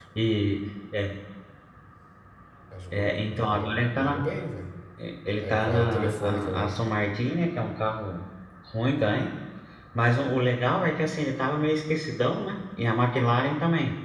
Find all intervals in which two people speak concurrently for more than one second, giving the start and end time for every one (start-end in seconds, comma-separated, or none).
2.9-4.2, 5.4-6.8